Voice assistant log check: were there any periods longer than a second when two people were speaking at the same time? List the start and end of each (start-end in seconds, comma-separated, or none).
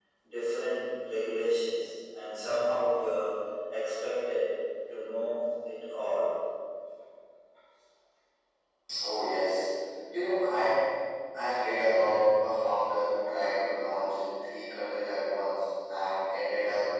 none